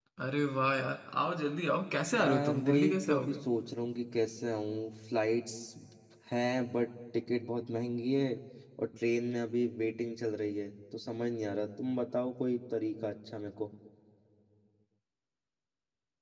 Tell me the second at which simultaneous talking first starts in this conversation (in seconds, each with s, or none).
2.1 s